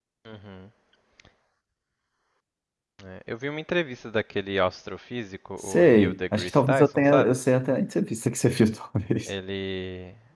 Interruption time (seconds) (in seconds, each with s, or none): 5.7 s